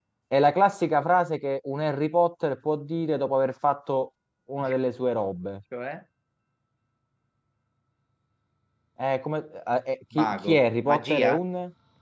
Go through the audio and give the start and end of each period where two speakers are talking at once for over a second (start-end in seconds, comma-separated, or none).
10.2-11.4